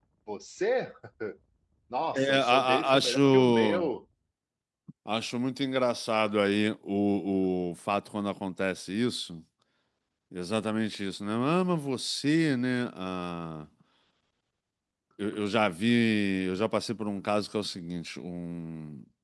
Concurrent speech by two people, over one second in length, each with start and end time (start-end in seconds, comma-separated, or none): 2.1-3.9